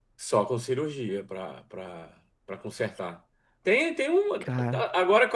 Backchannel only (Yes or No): Yes